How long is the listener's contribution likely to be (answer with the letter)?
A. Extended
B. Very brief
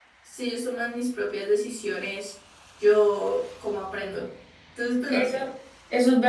A